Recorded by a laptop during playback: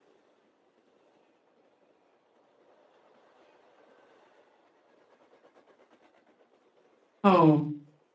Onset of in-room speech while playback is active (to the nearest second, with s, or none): 7 s